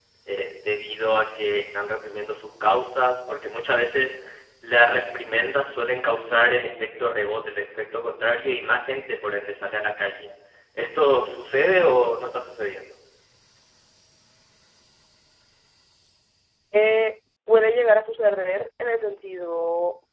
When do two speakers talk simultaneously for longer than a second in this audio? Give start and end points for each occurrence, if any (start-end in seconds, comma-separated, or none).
none